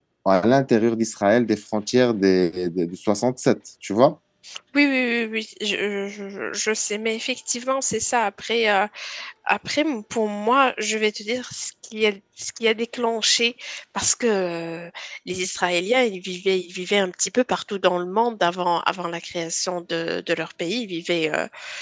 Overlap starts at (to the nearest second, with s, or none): none